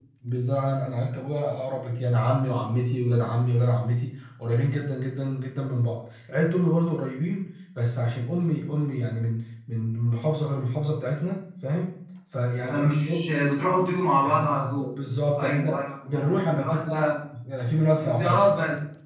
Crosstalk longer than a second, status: present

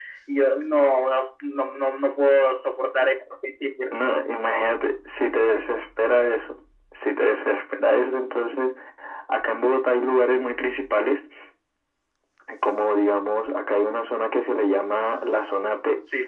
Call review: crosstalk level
none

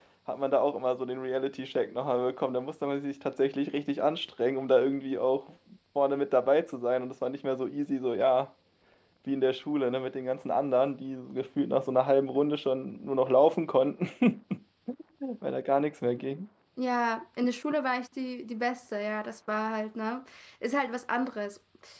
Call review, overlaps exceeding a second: none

